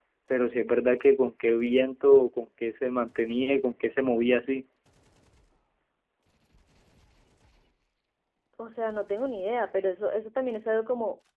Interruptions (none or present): none